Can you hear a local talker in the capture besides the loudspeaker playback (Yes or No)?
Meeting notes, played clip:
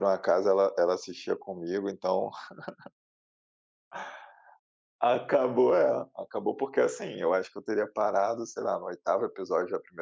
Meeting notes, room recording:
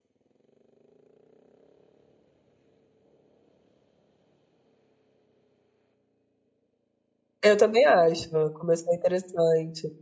Yes